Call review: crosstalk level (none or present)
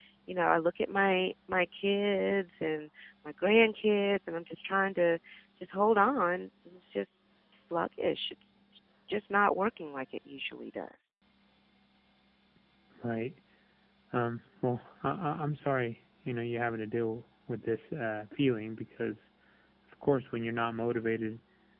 none